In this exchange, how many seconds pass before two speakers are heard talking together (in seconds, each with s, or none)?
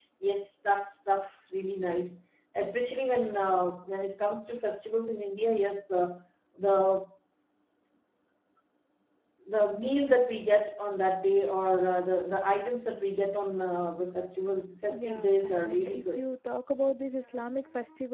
14.8 s